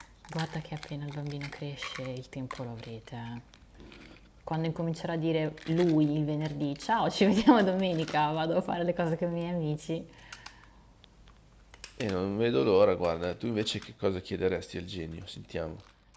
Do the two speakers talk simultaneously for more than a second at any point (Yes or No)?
No